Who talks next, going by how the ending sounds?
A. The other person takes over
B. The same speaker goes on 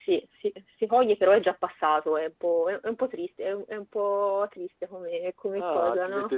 A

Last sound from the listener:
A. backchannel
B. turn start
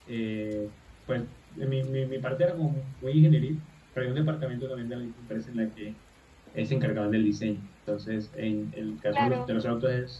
A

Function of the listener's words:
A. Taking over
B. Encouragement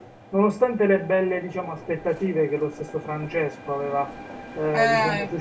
B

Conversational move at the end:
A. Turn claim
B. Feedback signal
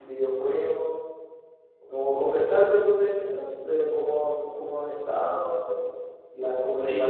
A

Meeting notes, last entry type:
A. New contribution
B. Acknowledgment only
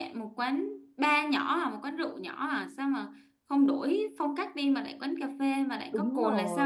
A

